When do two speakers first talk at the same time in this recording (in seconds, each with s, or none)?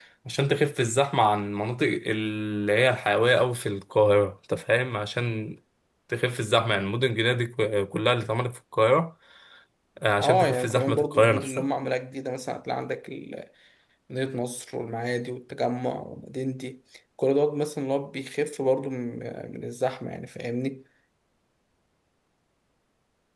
10.2 s